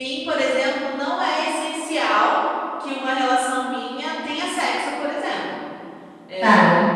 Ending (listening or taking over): listening